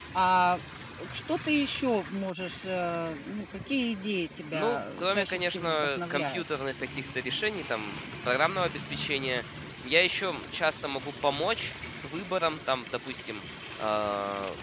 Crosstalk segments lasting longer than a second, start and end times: 4.5-6.4

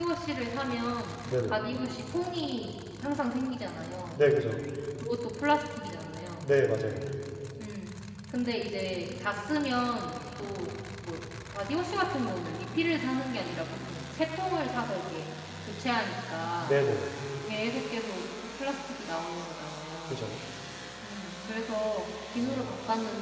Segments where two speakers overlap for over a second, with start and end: none

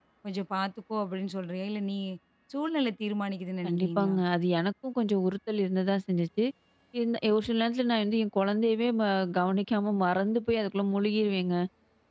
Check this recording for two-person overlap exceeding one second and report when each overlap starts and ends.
none

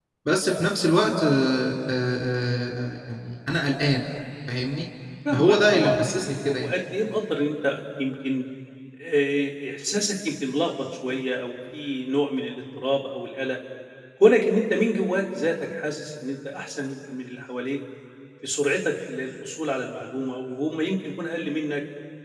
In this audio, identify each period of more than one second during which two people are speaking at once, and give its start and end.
5.3-6.7

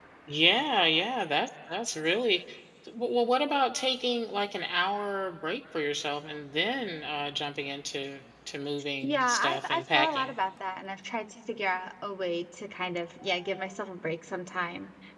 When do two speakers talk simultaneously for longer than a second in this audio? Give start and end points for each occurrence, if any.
9.0-10.3

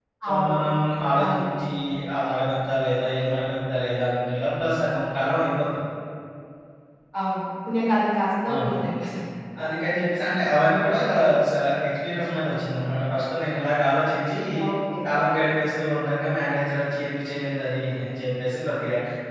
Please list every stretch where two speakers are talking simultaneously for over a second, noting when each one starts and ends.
none

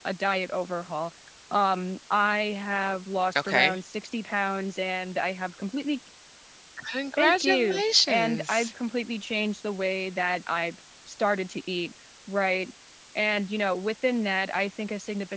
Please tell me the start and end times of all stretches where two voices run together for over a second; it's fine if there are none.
7.2-8.7

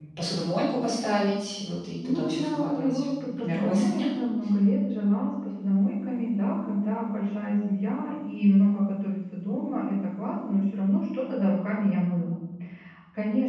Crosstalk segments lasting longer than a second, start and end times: 2.0-4.0

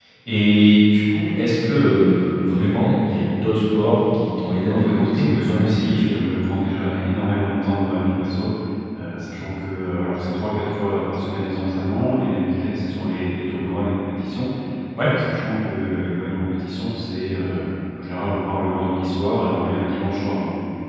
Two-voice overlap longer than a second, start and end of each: 4.6-6.2

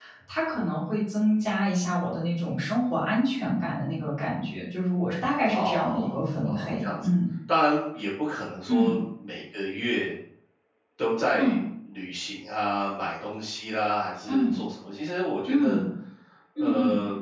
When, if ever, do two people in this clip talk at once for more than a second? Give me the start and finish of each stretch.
5.5-7.1

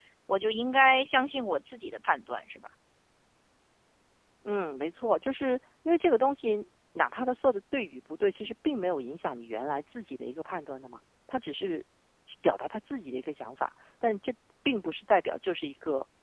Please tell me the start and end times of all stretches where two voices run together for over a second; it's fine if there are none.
none

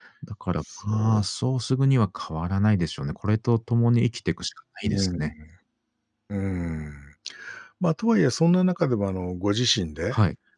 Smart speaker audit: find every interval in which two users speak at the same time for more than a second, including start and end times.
none

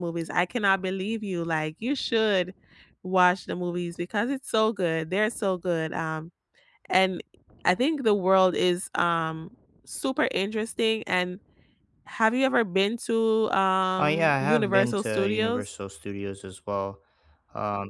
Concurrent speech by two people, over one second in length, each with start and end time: 14.0-15.7

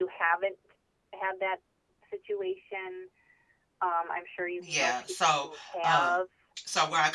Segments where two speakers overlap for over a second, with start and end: 4.6-6.2

